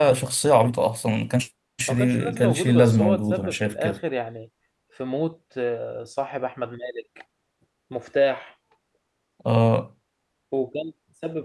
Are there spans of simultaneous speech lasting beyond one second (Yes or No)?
Yes